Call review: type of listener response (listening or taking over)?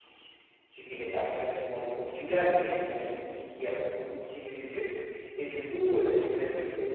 listening